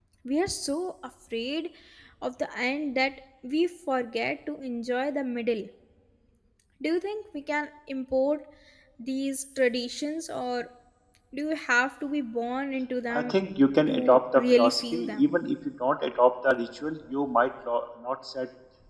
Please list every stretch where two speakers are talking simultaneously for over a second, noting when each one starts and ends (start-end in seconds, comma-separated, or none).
13.9-15.3